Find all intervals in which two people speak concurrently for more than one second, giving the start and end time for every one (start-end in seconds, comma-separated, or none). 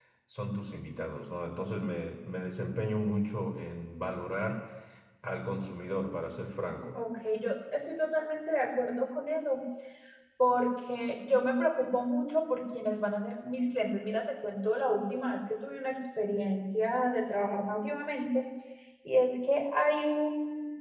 none